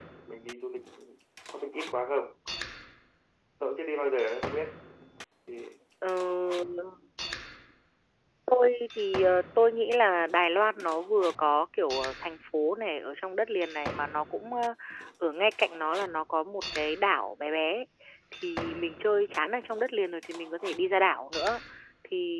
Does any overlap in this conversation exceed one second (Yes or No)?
No